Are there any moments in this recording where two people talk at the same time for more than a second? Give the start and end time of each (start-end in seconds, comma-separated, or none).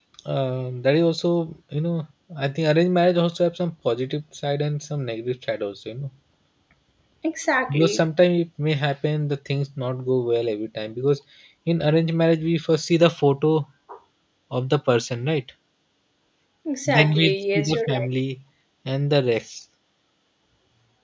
16.9-18.1